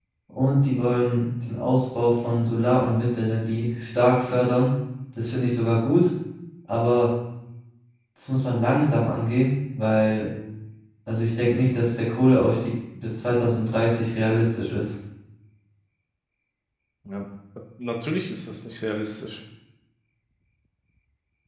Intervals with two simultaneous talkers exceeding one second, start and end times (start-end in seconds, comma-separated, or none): none